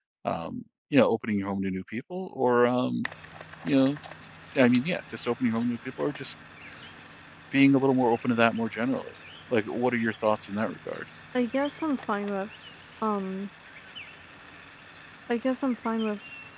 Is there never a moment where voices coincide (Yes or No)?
Yes